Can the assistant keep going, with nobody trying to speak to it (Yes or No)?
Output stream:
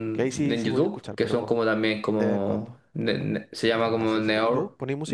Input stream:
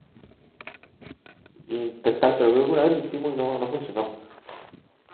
No